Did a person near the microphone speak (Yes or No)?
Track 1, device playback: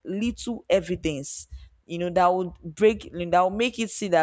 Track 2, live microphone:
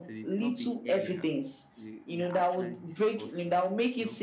Yes